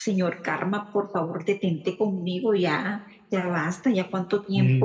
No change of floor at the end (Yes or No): No